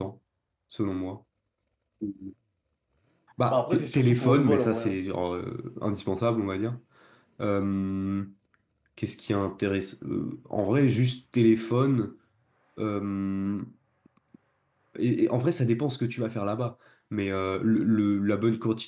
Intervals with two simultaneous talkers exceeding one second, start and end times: 3.5-5.0

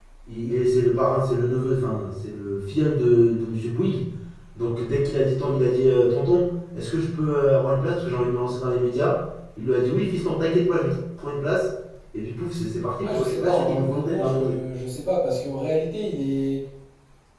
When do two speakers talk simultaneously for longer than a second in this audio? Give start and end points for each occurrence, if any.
13.0-14.6

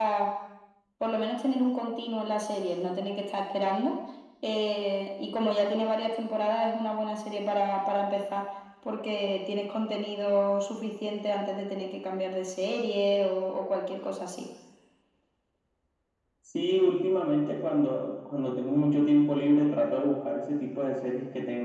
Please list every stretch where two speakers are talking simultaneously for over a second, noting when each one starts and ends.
none

